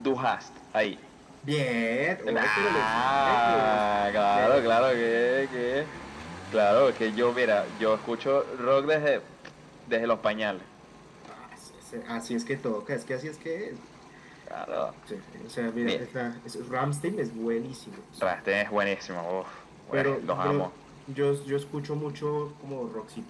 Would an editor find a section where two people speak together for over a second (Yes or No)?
Yes